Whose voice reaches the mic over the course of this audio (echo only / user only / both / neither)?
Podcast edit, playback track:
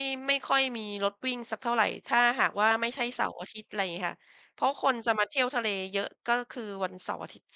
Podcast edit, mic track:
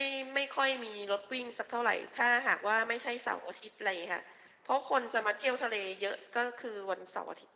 echo only